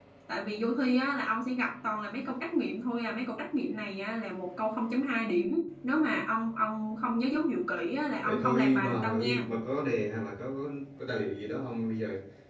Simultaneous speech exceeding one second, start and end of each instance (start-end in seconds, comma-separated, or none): 8.2-9.5